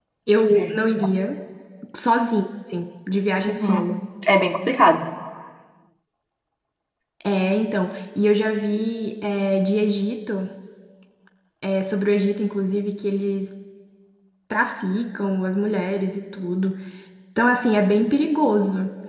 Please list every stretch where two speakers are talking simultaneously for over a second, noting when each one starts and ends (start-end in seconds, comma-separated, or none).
none